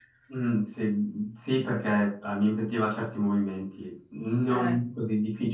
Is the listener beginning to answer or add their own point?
No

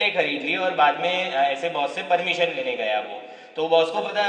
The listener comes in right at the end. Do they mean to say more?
No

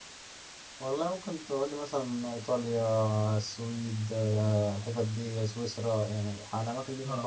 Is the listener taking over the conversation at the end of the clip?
Yes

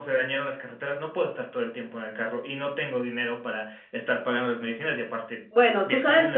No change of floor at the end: No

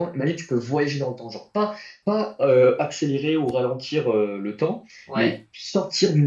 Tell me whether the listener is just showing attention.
Yes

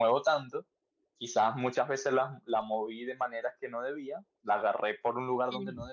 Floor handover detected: No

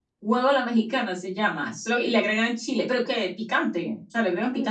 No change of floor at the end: No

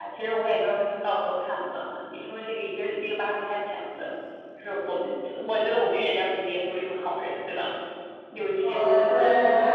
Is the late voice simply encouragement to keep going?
No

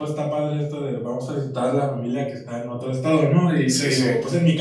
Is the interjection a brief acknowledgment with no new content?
Yes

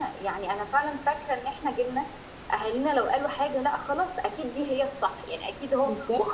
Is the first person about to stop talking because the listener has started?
No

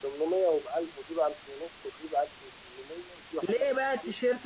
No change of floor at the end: No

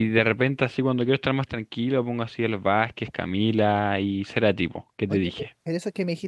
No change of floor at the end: No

